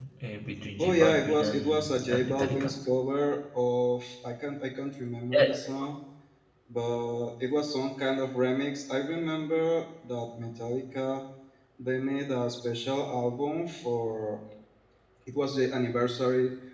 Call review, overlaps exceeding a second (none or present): present